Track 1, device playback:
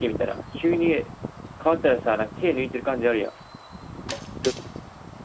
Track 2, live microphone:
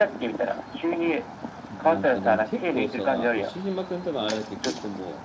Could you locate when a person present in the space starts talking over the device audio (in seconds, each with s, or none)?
1.7 s